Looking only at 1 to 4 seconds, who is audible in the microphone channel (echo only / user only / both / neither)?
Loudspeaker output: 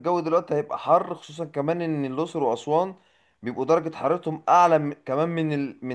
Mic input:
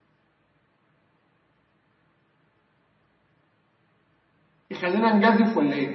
neither